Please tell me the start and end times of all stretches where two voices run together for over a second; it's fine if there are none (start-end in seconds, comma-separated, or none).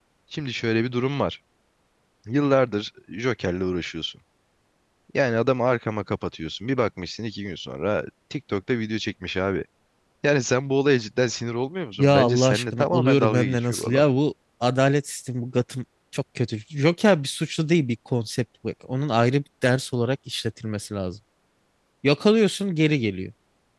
12.0-14.0